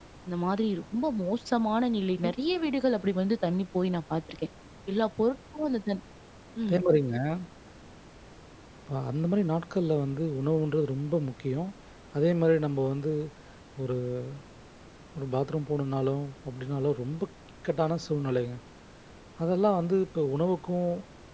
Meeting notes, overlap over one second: none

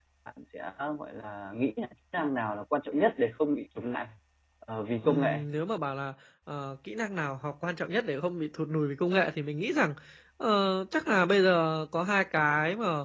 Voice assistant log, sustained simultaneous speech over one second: none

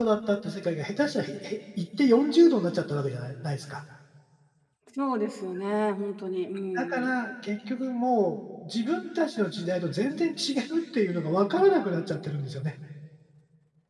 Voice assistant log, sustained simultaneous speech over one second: none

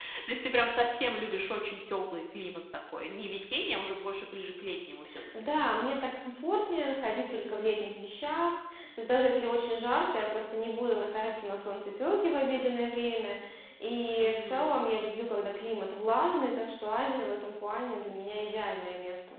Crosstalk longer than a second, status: none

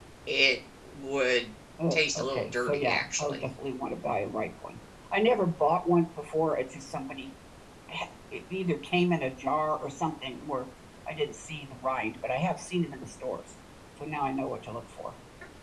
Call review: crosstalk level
present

